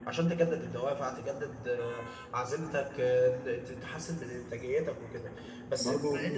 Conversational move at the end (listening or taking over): listening